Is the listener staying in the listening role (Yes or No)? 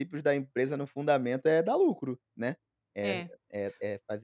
Yes